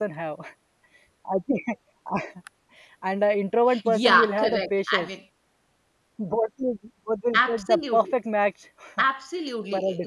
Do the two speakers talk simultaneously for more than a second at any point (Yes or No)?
Yes